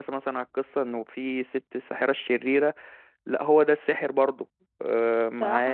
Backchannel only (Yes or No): No